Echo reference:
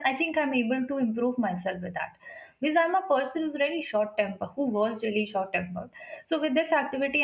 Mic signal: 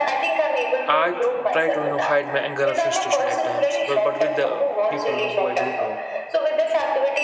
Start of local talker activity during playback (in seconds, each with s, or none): 0.9 s